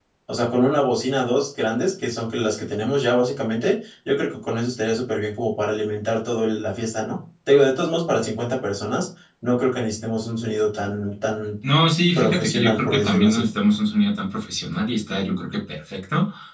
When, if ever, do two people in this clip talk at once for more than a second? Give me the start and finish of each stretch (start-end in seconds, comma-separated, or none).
12.2-13.5